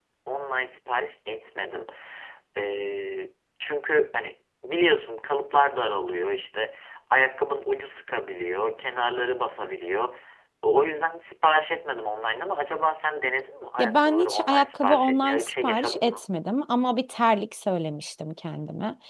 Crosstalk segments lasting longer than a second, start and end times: 13.8-16.3

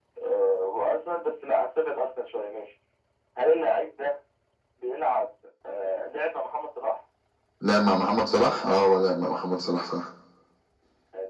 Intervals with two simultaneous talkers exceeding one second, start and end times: none

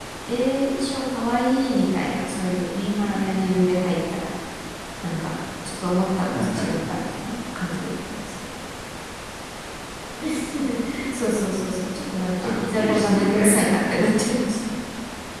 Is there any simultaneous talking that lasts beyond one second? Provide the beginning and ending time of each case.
12.4-14.1

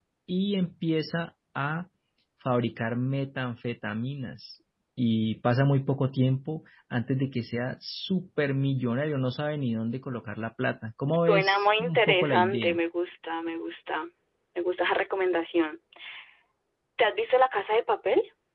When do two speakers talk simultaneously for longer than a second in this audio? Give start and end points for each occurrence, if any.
11.3-12.8

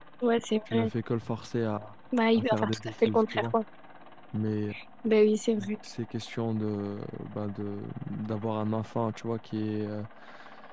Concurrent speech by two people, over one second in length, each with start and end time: 2.3-3.5

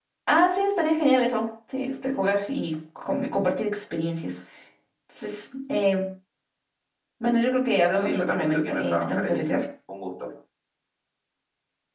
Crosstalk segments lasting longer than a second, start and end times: 8.0-9.4

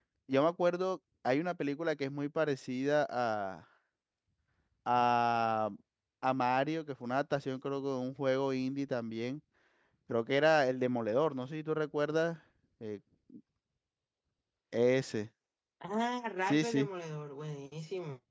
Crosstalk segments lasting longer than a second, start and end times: none

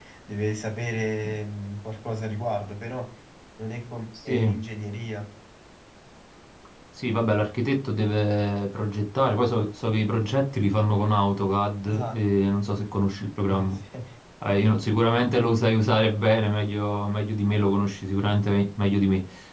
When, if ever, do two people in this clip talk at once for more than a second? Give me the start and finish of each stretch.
none

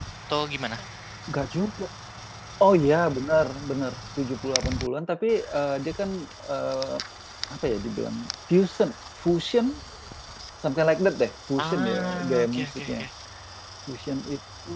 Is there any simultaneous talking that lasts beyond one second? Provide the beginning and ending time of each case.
11.6-12.9

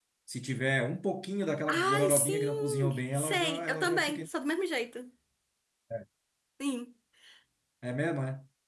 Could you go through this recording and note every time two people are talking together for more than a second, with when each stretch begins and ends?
1.7-4.3

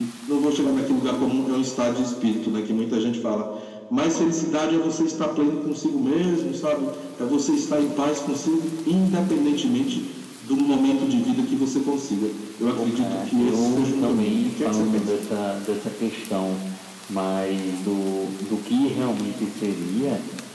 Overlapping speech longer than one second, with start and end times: 12.8-15.1

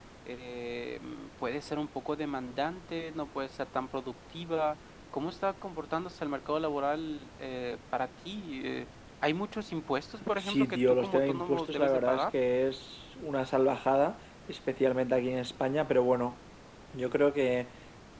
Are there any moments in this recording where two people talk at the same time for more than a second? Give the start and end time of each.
10.4-12.4

